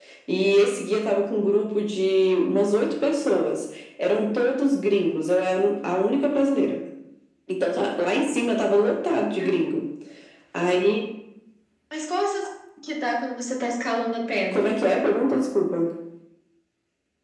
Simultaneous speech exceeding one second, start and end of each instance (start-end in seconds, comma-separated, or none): none